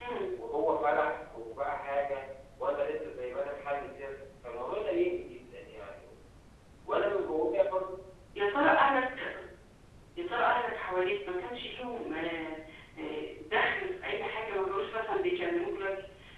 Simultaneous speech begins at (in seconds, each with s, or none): none